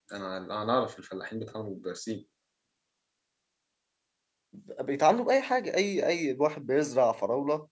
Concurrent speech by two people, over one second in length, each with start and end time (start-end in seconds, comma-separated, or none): none